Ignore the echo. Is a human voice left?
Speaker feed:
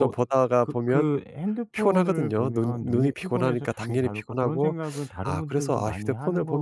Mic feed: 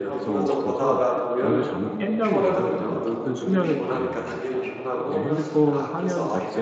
Yes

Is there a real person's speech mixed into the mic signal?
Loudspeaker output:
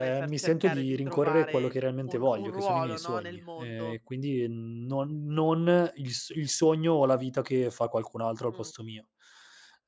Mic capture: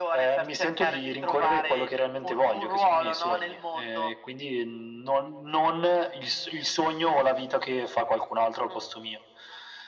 No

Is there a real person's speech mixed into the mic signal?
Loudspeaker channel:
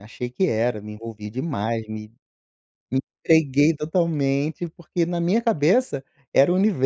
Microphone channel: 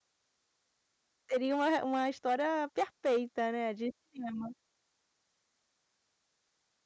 Yes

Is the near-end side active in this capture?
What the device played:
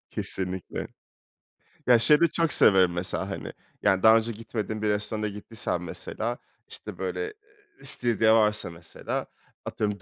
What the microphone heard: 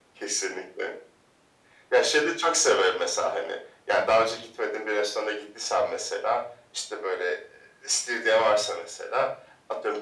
No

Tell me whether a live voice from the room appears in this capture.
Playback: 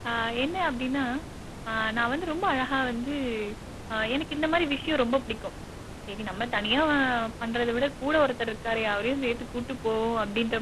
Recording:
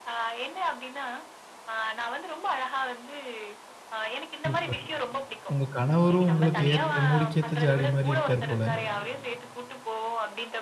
Yes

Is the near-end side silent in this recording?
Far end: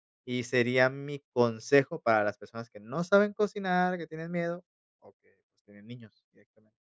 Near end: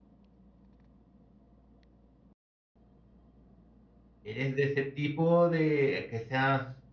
No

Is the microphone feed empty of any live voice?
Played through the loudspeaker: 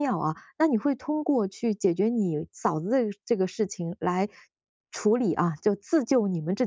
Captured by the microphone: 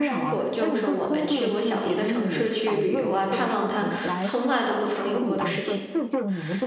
No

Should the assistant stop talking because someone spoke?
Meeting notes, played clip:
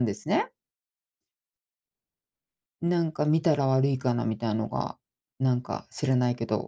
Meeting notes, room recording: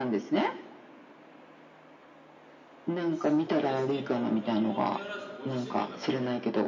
Yes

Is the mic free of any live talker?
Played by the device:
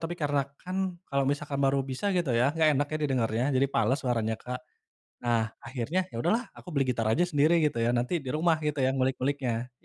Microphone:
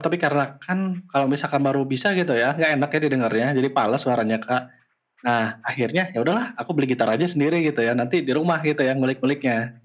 Yes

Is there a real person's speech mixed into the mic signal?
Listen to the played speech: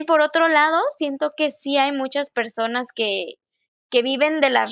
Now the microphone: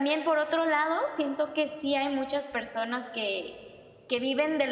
No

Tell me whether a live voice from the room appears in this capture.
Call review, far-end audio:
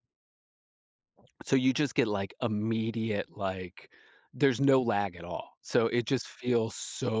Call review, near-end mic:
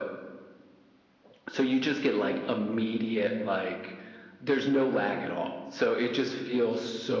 No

